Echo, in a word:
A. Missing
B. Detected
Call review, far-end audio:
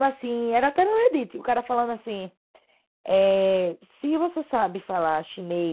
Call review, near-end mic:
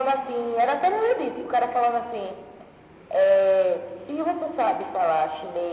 B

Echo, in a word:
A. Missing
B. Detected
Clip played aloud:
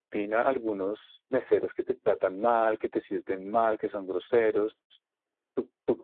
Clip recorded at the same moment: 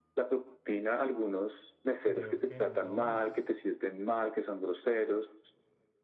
B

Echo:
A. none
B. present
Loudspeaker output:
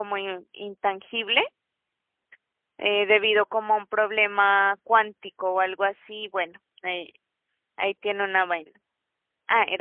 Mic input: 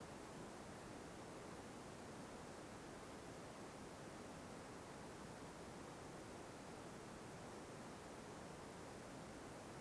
A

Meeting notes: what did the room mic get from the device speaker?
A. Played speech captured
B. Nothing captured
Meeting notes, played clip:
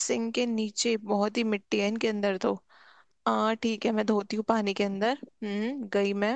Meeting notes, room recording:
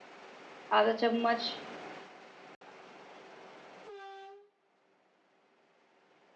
B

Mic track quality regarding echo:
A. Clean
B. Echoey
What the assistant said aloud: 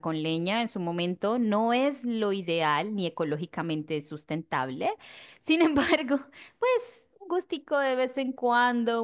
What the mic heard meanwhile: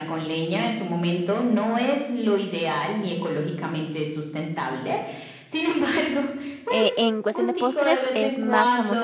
B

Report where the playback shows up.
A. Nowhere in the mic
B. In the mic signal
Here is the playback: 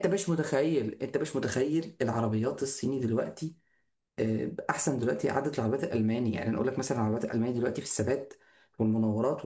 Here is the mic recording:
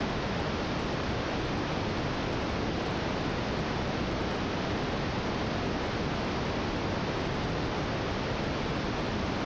A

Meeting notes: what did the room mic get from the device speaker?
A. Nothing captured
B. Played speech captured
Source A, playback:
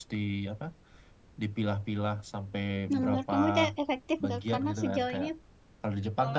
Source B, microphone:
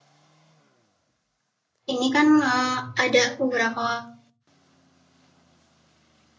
A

